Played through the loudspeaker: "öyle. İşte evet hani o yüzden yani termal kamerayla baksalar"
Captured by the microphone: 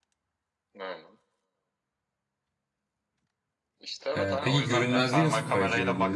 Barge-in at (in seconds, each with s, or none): 4.2 s